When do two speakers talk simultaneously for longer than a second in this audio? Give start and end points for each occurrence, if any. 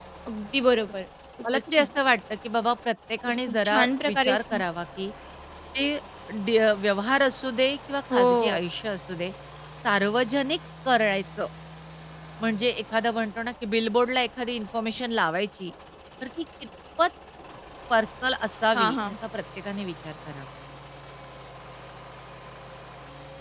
3.3-4.6

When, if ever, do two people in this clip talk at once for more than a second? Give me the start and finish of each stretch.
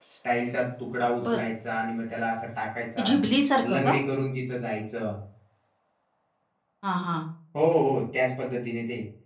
none

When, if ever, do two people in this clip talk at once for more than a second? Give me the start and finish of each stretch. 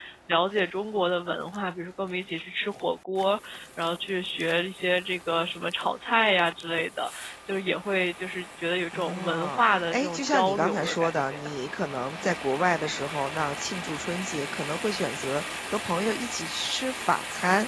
8.9-11.4

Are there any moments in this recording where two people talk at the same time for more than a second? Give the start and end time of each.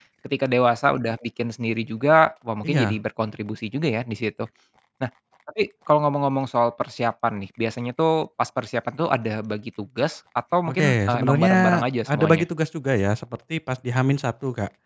10.7-12.4

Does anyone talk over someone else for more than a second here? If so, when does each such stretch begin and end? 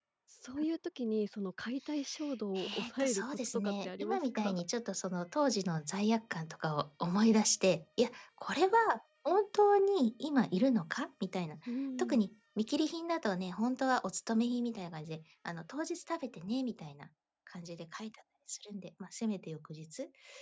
2.5-4.6

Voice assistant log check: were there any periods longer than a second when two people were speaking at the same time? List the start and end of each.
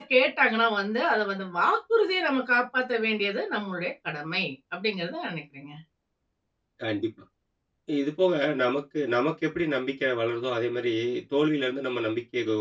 none

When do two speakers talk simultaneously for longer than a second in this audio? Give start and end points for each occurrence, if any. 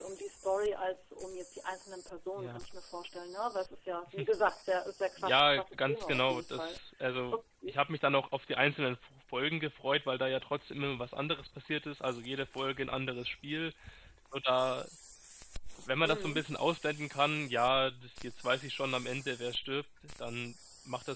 5.2-6.8

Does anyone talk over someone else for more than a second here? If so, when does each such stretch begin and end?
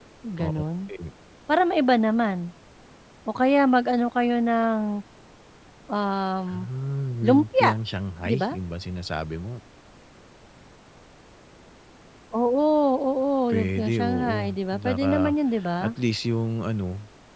13.5-15.3

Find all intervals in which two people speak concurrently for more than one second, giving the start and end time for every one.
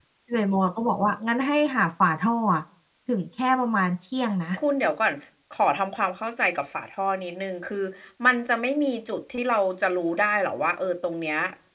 none

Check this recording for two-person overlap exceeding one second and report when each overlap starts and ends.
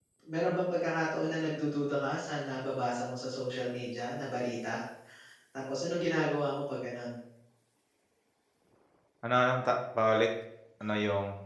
none

